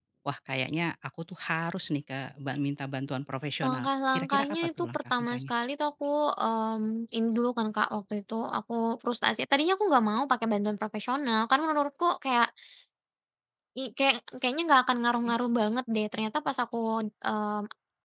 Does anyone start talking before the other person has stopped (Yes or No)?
Yes